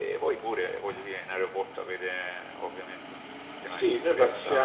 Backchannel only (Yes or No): No